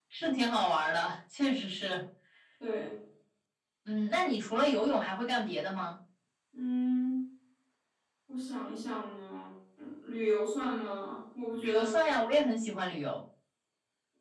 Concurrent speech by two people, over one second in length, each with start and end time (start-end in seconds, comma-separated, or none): none